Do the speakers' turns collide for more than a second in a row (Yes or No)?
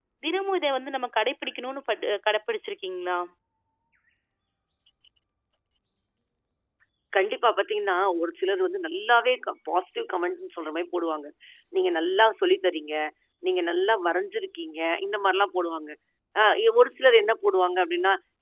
No